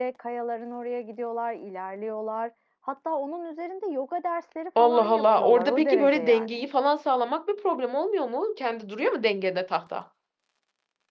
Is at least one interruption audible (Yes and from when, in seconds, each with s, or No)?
Yes, from 4.8 s